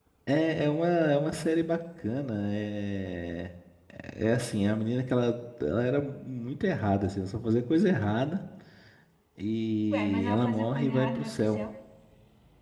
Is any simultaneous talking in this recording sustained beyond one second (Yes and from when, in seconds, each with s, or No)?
Yes, from 9.9 s